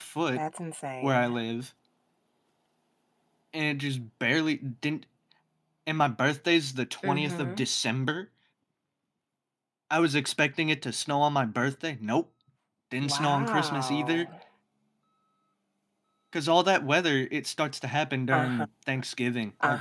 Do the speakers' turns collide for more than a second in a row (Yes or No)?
Yes